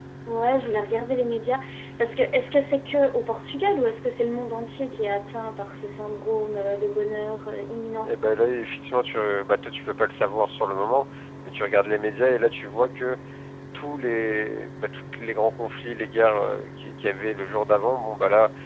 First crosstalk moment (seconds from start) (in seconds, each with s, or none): none